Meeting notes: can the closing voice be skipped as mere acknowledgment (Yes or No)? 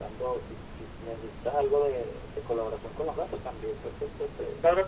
No